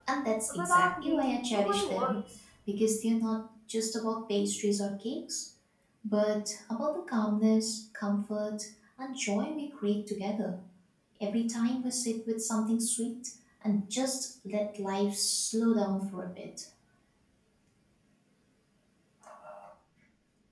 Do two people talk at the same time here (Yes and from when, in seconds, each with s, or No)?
Yes, from 0.6 s